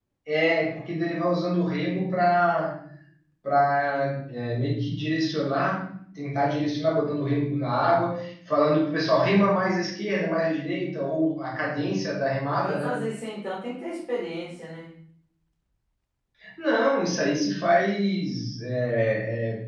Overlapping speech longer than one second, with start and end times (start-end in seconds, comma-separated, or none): none